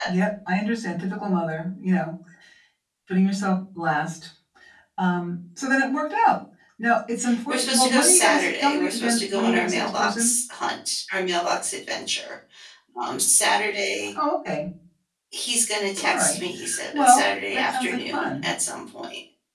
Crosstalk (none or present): present